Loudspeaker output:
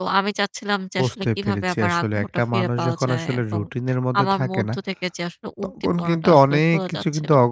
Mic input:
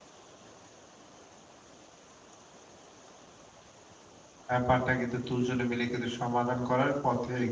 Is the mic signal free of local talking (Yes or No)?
No